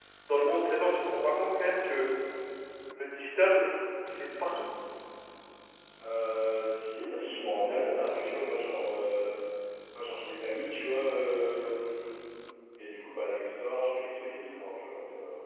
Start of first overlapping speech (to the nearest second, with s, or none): none